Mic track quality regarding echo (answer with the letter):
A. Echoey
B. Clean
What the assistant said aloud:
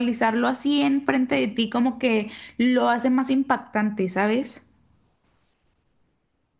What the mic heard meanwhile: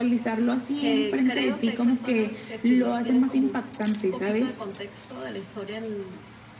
A